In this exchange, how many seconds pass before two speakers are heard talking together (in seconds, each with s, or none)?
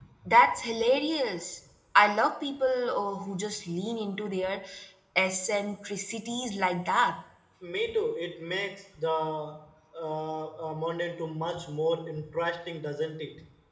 none